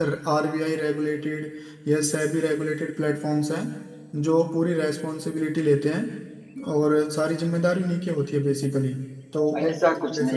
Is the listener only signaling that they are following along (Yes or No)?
No